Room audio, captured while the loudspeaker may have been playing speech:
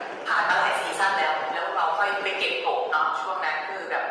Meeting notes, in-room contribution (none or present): none